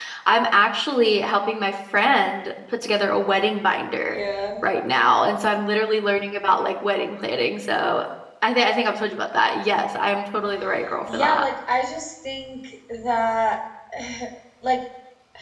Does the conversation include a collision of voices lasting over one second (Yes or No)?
No